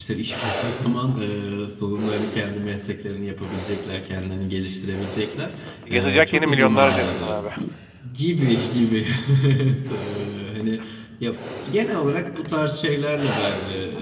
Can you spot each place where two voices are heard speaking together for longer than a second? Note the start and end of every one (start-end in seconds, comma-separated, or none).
5.9-7.4